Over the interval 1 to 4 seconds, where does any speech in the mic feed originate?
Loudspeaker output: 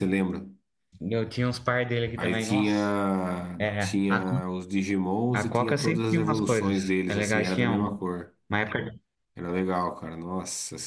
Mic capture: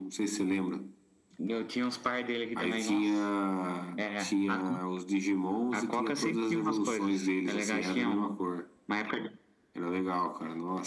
echo only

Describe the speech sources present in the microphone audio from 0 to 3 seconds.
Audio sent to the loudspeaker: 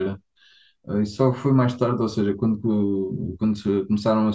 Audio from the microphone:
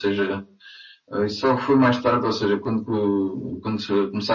echo only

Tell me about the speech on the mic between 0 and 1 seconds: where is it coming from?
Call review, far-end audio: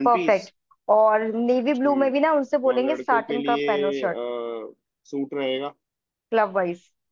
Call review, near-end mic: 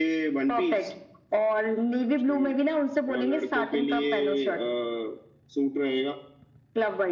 echo only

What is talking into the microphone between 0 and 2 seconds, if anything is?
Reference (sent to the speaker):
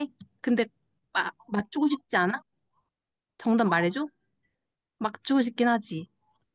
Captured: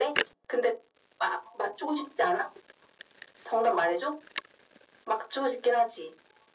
echo only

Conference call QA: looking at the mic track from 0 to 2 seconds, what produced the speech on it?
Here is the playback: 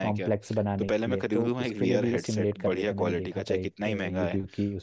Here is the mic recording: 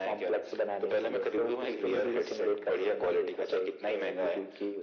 echo only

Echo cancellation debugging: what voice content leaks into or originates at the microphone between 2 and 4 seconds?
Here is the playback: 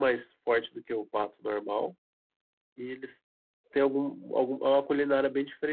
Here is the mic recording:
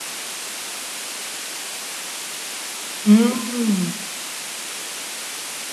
user only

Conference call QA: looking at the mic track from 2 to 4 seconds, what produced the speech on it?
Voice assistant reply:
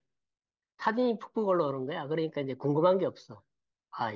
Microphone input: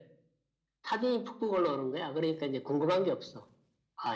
echo only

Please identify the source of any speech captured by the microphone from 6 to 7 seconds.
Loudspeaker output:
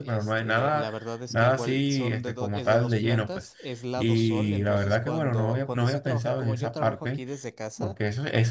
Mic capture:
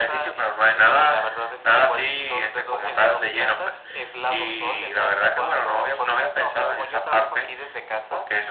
echo only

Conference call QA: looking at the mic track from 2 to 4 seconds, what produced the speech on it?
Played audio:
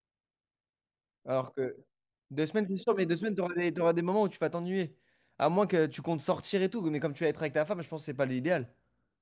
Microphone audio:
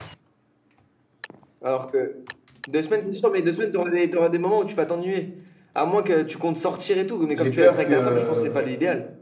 echo only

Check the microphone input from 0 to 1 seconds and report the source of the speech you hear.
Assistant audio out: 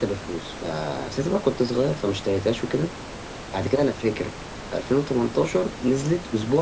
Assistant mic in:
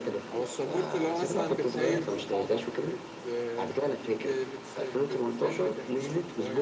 both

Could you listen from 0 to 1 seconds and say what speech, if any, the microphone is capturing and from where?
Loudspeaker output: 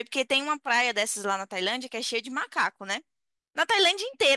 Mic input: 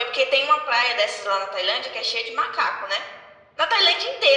echo only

